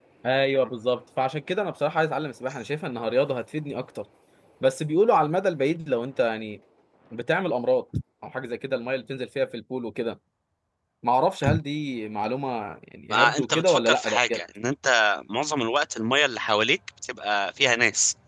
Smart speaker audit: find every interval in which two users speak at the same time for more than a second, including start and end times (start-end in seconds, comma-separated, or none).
13.1-14.4